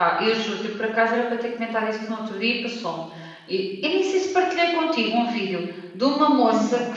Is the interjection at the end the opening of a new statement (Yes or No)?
No